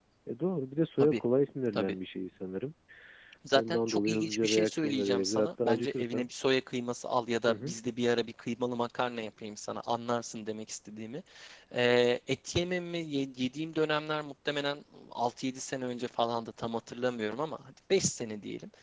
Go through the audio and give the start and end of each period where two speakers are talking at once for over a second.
3.5-6.2

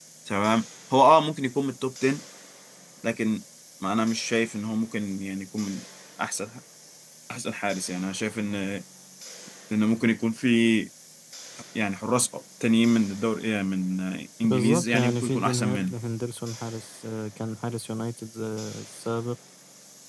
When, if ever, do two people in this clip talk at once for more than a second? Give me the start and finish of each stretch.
14.4-15.9

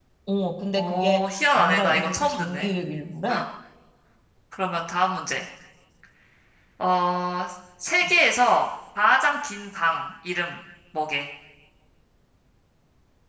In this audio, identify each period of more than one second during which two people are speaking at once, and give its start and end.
0.8-2.7

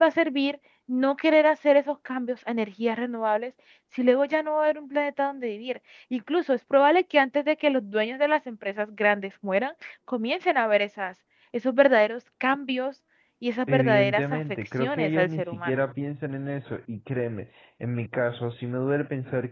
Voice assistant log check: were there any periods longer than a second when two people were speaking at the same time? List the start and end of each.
13.7-15.7

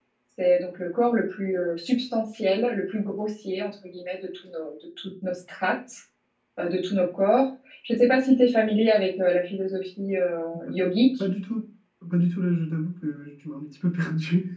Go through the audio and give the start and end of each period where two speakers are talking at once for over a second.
none

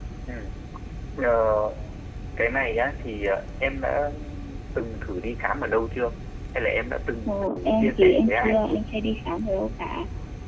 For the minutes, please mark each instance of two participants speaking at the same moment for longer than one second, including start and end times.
7.3-8.8

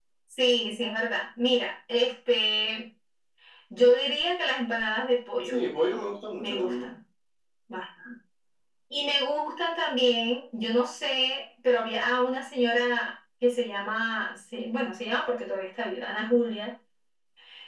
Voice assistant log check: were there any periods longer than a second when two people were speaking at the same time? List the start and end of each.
none

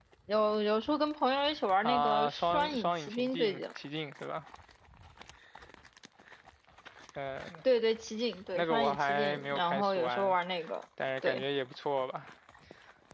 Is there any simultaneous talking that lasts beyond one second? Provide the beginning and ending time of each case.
1.8-3.6, 8.6-10.4

